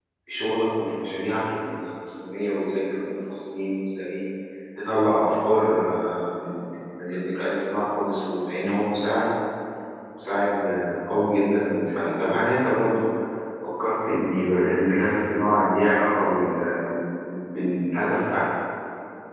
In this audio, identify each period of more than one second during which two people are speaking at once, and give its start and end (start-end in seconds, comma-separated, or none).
none